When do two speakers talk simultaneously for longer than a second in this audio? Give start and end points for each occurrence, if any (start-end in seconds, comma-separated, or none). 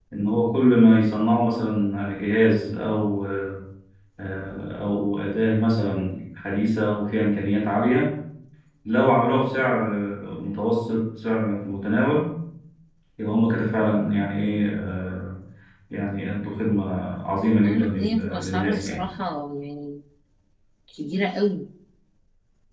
17.6-19.0